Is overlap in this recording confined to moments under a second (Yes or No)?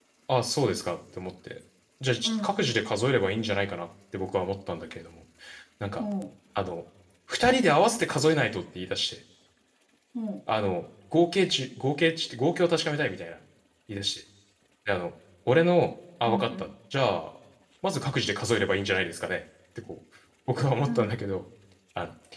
Yes